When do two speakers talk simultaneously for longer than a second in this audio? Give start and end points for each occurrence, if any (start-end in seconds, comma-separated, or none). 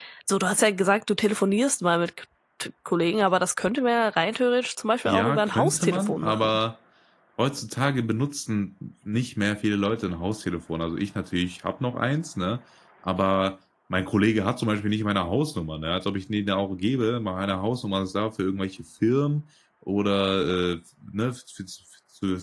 5.0-6.6